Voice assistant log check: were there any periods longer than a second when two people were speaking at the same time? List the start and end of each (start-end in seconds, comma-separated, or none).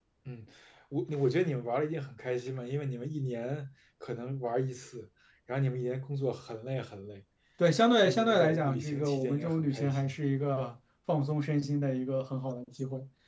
8.0-10.2